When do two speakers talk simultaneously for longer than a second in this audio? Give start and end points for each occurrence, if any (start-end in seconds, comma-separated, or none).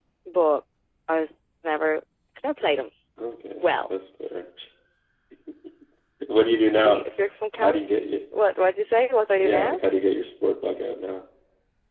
none